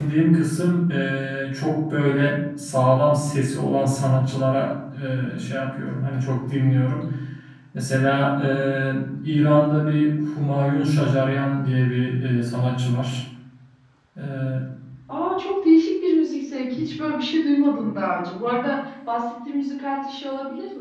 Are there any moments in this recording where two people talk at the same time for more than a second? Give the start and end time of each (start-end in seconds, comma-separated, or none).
none